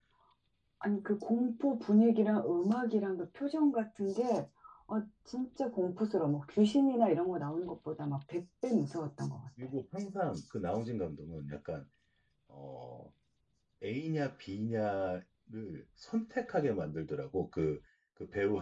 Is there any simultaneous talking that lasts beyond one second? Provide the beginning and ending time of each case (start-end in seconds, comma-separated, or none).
none